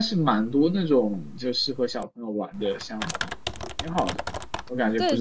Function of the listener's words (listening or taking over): taking over